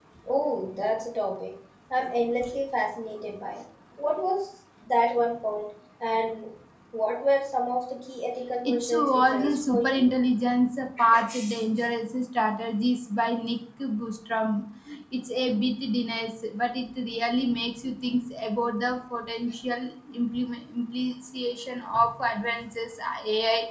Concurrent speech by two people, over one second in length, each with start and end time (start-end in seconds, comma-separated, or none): 8.6-10.1